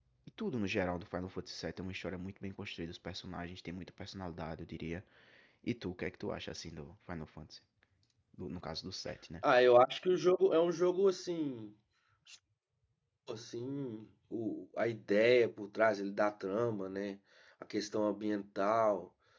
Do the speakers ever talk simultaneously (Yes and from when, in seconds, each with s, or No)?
No